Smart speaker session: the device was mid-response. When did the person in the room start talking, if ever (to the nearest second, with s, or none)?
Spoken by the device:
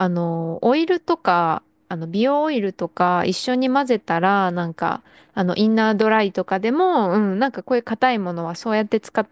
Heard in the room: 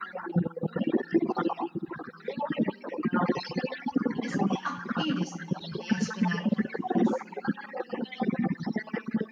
4 s